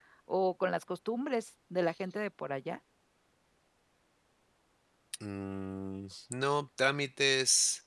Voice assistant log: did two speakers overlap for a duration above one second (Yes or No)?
No